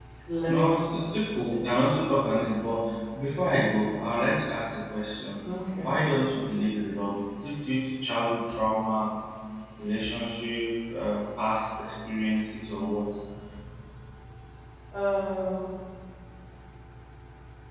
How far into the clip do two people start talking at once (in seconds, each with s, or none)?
none